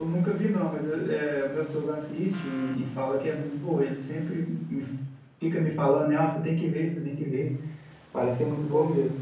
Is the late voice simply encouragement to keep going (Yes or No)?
No